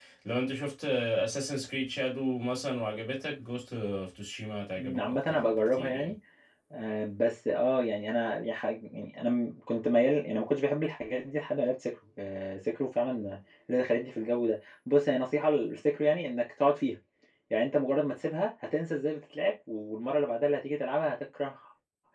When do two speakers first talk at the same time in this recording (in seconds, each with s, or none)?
4.7 s